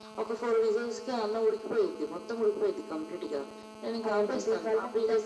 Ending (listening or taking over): taking over